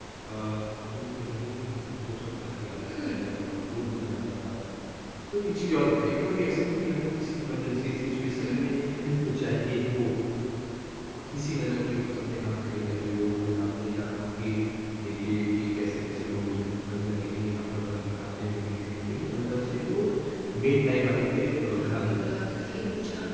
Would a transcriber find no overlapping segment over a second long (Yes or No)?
No